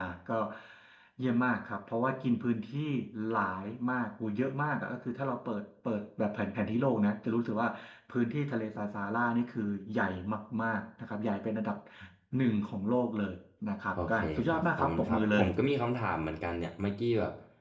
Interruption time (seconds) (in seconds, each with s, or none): 14.0 s